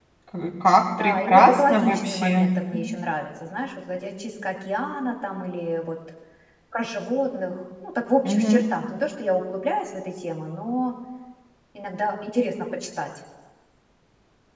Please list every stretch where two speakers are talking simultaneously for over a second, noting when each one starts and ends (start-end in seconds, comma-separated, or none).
1.0-3.0